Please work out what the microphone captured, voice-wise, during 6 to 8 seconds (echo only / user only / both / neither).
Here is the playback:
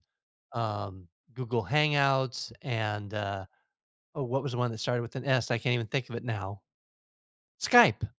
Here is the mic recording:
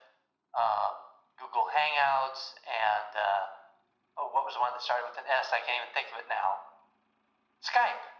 echo only